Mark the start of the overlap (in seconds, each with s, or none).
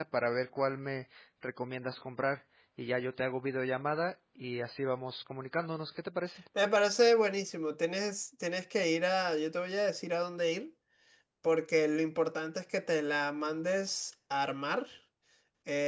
none